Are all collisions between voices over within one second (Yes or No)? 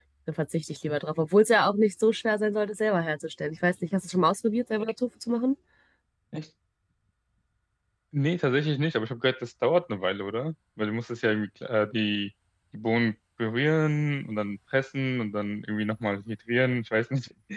Yes